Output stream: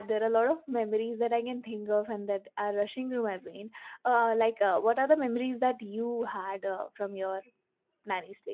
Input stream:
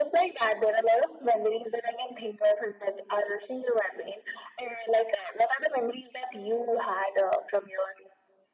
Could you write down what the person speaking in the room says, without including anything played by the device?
none

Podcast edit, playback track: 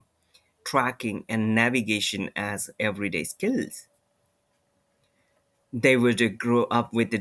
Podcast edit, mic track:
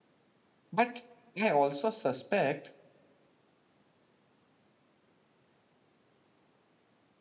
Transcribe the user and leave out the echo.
But I also suspect

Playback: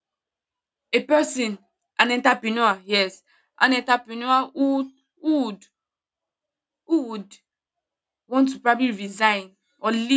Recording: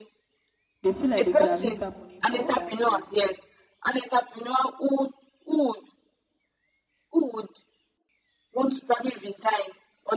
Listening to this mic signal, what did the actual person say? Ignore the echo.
they feel like they could have used that money for other things.

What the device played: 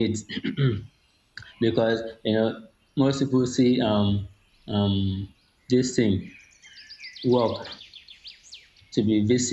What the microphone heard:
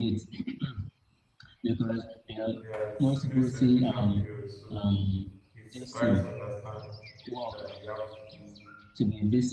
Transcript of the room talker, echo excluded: Yeah, it's you know it's celebration period, so it's quite understanding that we have to do

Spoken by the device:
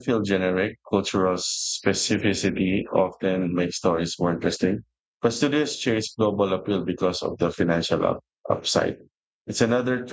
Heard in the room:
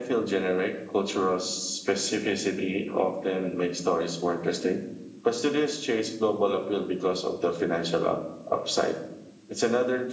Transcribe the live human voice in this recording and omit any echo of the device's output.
none

